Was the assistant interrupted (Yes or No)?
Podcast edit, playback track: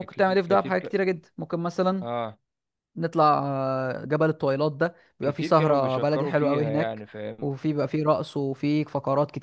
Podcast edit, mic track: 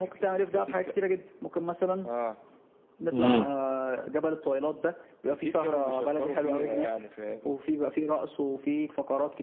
Yes